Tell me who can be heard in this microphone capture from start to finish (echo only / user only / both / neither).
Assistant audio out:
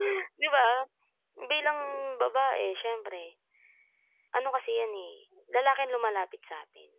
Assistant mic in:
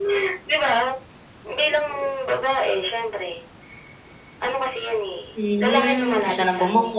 both